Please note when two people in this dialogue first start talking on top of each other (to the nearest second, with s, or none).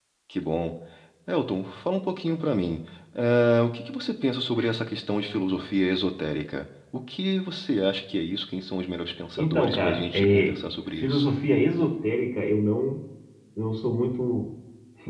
9 s